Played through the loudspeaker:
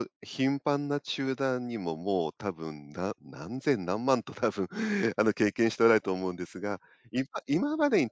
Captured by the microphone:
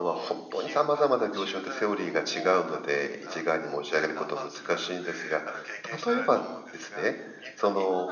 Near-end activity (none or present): present